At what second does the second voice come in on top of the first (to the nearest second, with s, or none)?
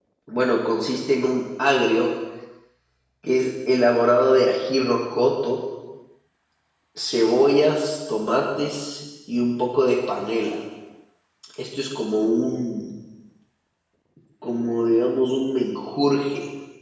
none